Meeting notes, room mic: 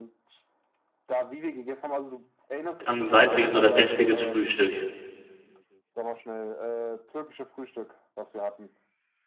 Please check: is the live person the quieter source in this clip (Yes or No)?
No